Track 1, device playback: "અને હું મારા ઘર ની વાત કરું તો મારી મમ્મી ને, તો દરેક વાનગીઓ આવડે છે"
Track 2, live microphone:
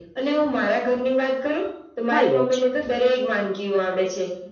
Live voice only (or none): હોય જ,